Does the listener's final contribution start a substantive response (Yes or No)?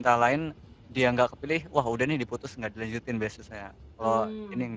Yes